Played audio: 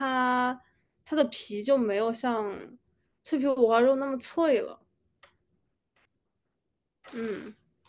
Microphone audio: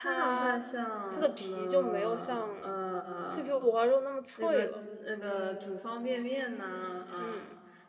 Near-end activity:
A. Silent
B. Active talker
B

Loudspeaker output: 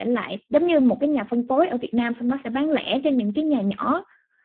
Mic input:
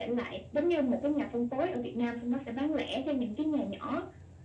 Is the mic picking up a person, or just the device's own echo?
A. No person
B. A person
A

